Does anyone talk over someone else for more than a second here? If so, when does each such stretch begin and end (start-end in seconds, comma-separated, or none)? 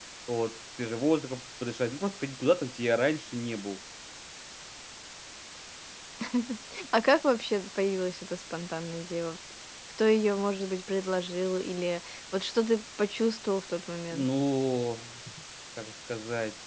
none